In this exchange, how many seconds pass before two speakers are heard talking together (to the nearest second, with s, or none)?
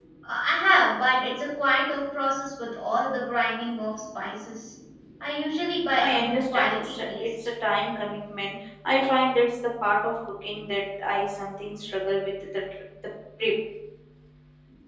6 s